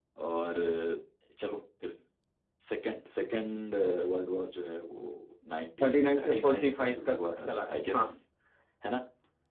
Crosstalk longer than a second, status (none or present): present